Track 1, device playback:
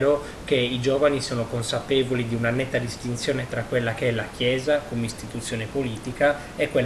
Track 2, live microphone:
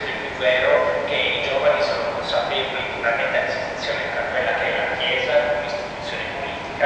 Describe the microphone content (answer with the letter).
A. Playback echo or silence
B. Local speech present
A